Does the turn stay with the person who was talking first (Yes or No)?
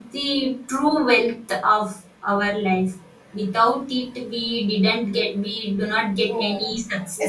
No